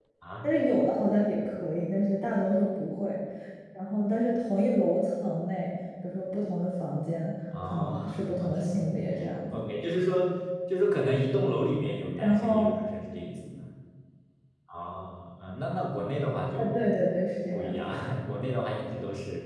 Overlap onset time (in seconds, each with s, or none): 7.6 s